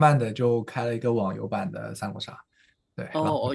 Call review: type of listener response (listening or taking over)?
taking over